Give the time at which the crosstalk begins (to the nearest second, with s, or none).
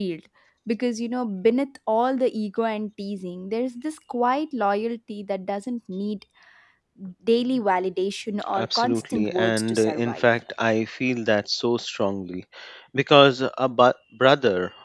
9 s